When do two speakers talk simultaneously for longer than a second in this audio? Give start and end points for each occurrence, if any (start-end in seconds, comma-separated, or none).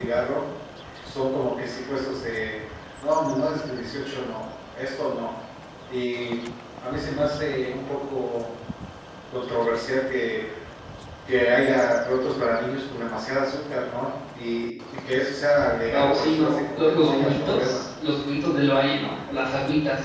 15.9-17.8